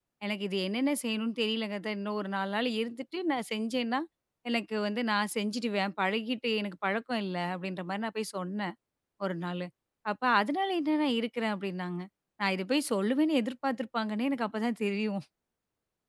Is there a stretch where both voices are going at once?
No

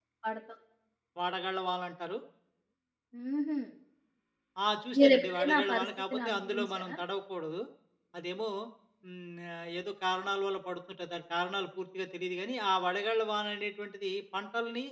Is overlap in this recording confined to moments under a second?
No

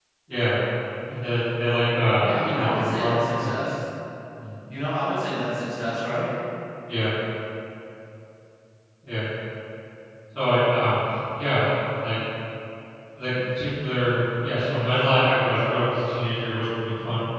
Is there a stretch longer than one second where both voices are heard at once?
Yes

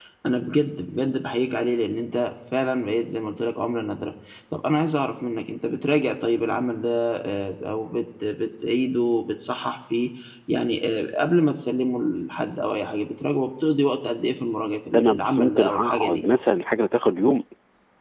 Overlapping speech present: Yes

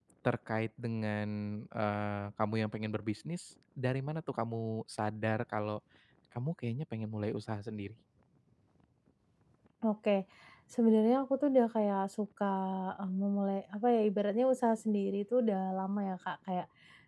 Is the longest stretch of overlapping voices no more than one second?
Yes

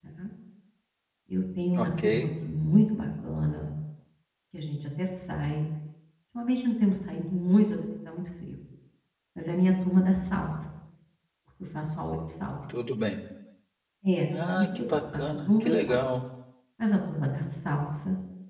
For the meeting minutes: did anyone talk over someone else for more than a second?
Yes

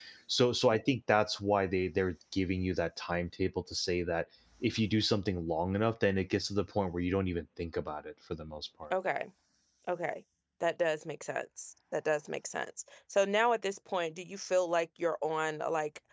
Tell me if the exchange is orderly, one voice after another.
Yes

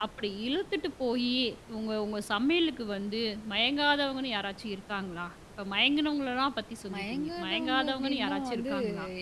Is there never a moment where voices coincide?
No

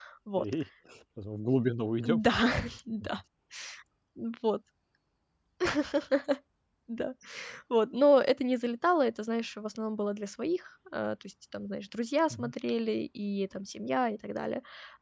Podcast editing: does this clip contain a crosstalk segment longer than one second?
No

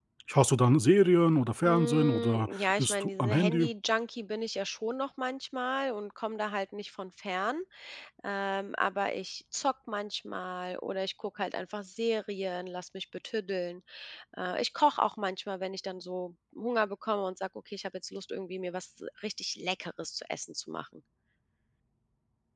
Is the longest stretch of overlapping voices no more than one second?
No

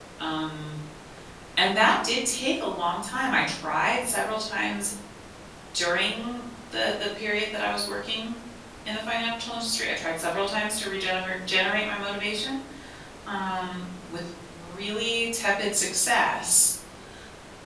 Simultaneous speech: No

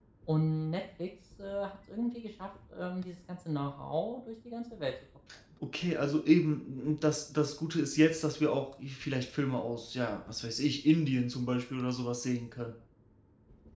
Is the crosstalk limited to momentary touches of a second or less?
Yes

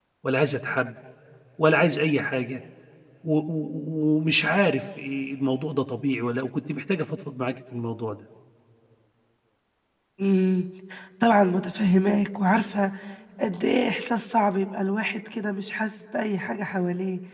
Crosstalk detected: No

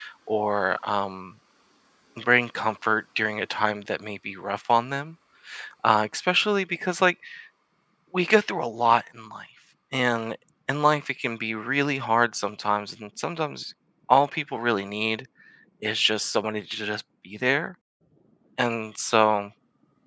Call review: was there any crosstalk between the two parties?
No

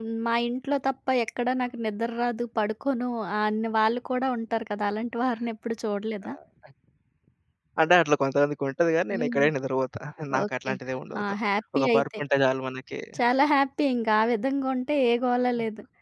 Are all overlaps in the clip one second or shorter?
Yes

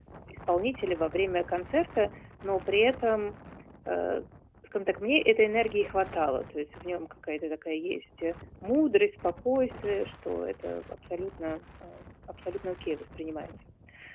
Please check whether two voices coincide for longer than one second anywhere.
No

